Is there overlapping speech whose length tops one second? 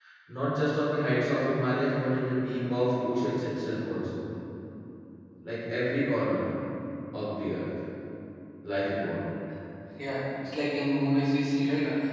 No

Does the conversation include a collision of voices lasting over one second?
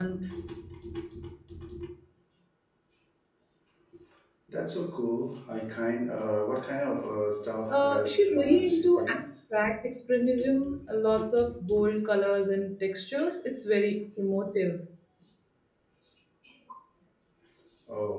Yes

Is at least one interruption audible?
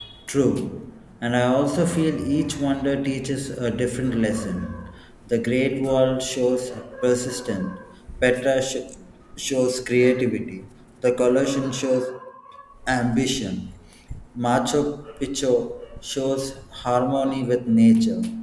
No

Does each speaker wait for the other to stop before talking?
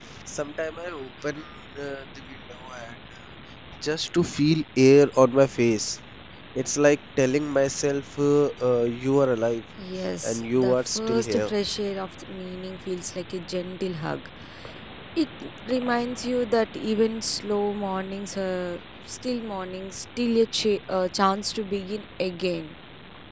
No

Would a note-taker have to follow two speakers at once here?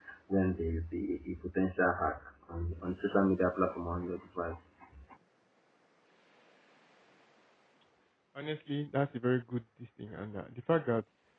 No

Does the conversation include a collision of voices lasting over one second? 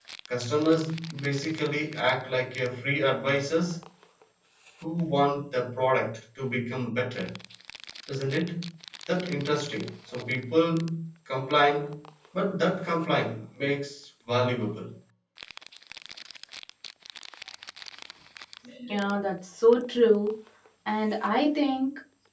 No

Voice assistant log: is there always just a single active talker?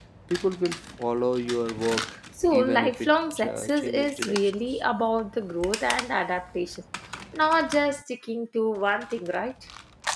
No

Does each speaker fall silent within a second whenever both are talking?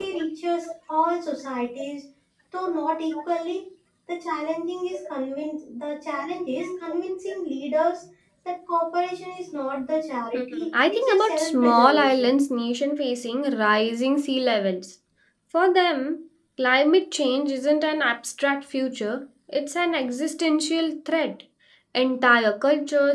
No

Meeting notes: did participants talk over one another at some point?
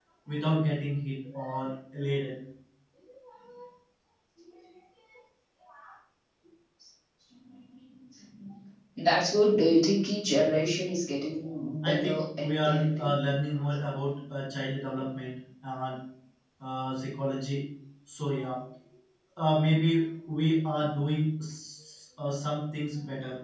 Yes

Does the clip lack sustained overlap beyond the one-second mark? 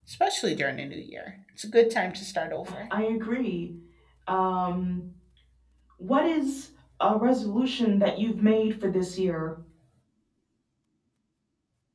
Yes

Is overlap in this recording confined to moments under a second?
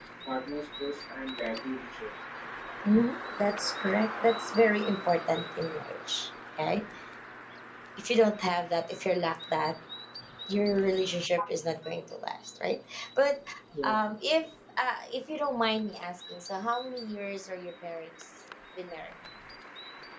Yes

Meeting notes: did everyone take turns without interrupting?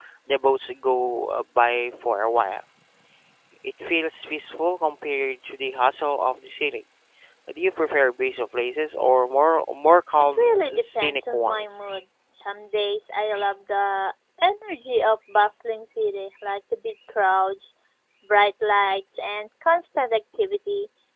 No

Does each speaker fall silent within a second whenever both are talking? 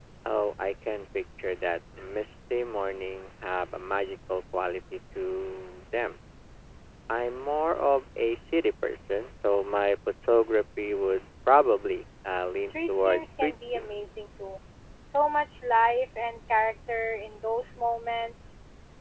No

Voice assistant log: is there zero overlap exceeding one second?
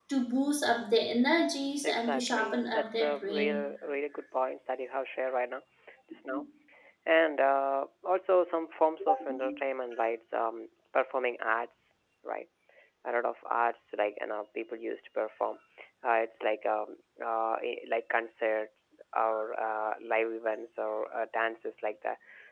No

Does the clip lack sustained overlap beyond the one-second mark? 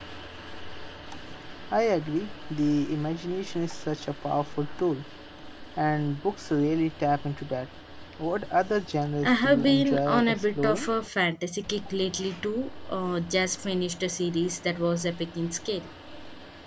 No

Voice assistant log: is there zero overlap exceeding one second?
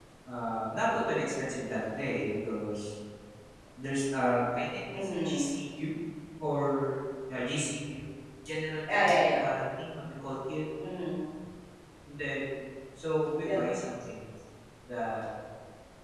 Yes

